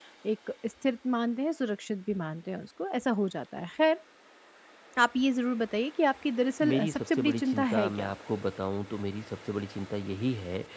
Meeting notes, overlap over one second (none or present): present